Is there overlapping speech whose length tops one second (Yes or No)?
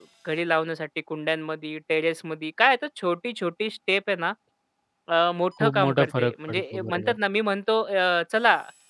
Yes